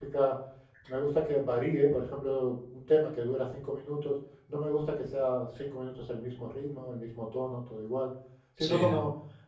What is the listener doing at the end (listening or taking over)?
listening